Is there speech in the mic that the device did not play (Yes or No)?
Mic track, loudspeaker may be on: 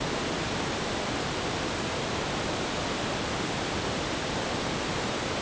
No